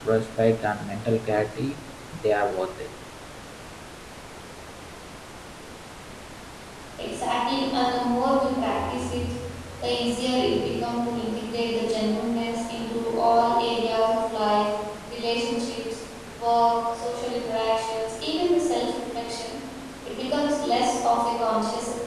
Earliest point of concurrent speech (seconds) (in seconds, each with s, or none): none